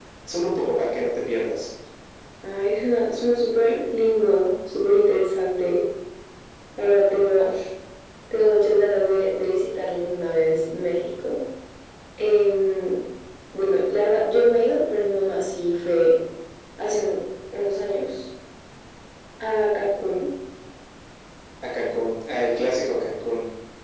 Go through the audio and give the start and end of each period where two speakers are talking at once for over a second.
none

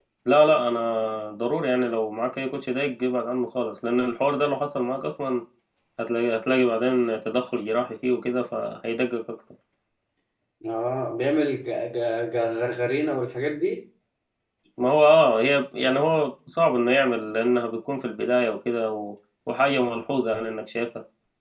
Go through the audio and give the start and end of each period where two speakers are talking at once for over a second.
none

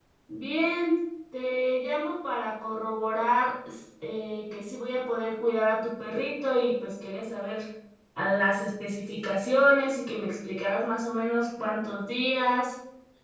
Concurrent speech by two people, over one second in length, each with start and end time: none

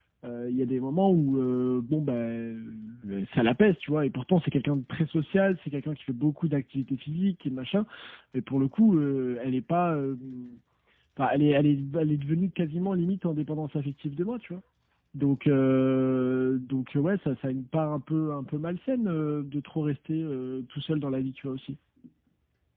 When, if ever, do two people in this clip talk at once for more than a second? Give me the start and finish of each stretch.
none

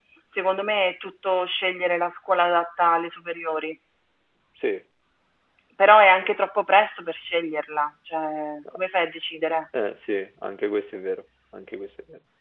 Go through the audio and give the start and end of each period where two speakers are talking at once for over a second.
none

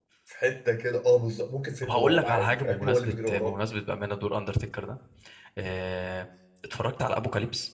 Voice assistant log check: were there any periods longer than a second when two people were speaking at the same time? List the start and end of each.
1.8-3.6

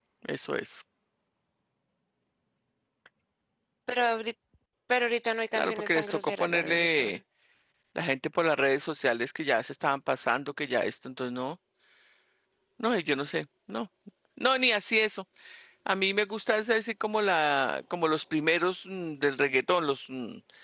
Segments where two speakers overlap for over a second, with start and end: 5.6-7.2

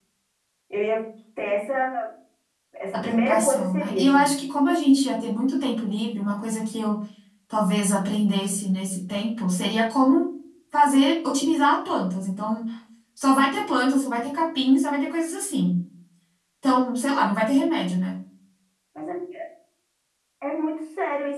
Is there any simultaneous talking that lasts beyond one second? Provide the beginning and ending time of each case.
2.9-4.3

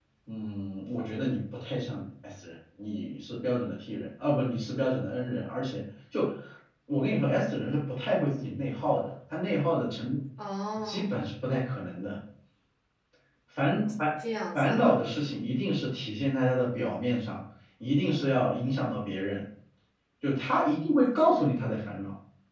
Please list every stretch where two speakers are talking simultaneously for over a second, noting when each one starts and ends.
none

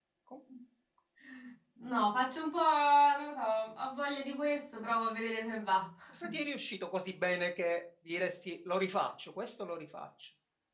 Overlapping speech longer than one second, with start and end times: none

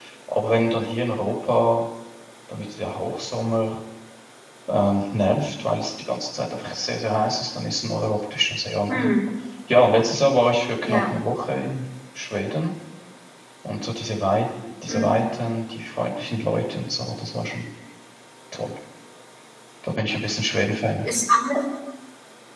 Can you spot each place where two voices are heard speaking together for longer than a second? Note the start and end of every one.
none

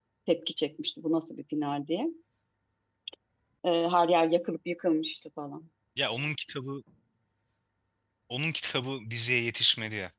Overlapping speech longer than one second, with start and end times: none

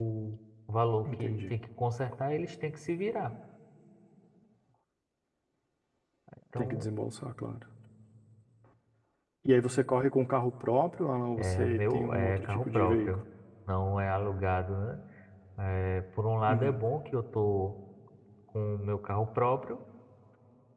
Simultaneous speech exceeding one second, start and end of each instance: 11.4-13.2

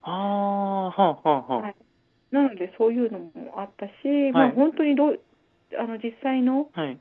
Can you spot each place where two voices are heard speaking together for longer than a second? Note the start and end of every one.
none

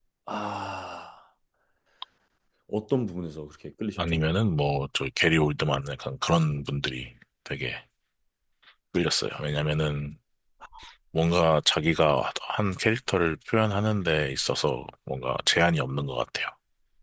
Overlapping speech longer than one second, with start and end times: none

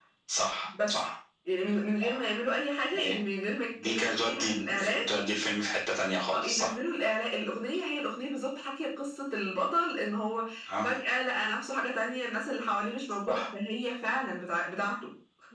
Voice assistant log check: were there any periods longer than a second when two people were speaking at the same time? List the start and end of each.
3.8-5.1

